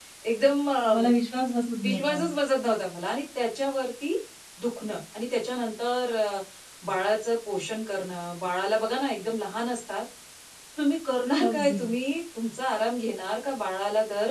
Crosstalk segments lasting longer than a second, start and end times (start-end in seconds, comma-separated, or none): none